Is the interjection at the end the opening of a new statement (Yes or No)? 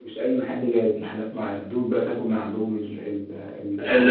Yes